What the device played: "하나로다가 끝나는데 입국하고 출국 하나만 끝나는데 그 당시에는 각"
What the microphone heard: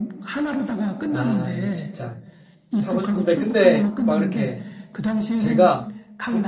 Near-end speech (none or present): present